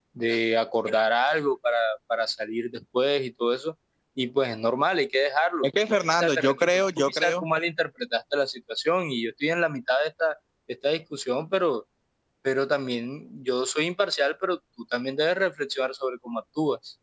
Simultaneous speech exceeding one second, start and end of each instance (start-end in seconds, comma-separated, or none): 6.2-7.4